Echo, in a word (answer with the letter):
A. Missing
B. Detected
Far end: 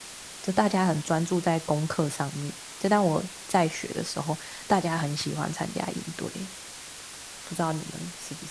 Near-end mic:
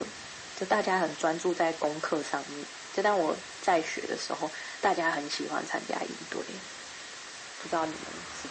B